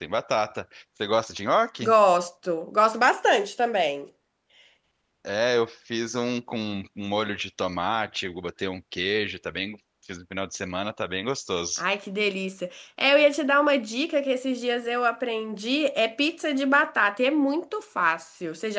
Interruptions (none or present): none